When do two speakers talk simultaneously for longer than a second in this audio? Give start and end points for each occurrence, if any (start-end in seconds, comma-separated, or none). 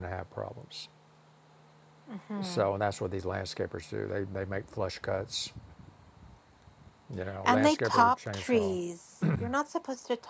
7.4-8.8